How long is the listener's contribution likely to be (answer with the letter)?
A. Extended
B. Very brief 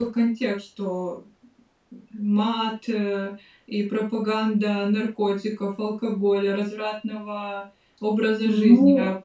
A